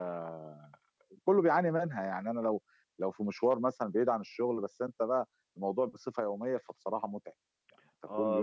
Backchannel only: No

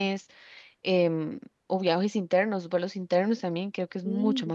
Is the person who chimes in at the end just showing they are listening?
No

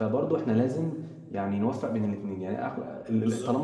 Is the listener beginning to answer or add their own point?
No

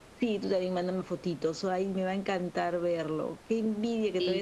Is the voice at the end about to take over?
No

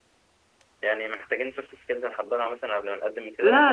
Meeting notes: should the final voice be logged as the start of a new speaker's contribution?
Yes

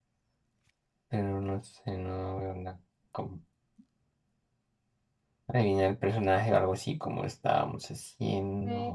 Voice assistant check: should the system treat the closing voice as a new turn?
Yes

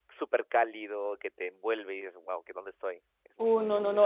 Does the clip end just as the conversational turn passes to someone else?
Yes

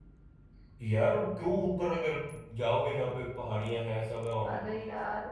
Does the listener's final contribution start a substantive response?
Yes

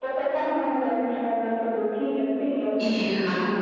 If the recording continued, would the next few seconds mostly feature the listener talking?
Yes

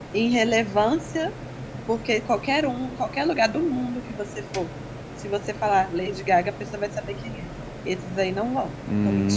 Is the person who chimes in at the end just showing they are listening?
No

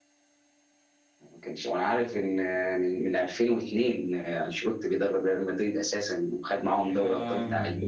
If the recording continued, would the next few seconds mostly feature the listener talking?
Yes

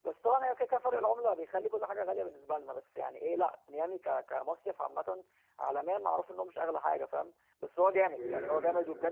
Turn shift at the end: No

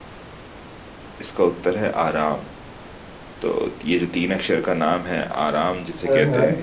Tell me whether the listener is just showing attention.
Yes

